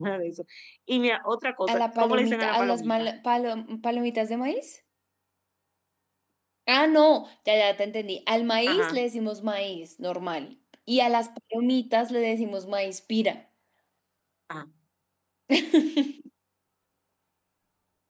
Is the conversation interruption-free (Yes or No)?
No